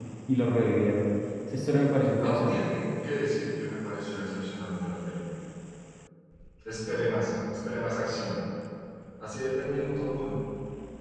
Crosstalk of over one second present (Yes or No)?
No